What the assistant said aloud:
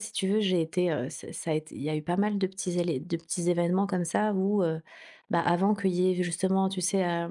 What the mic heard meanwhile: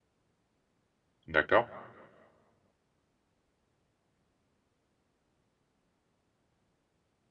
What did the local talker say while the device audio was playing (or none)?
D'accord.